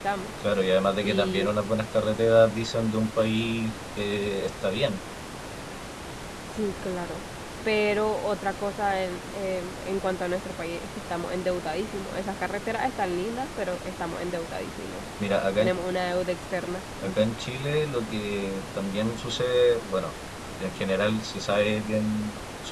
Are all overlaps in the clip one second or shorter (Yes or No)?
Yes